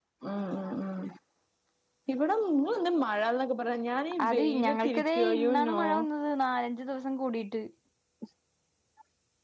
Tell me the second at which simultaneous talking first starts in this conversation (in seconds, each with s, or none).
4.2 s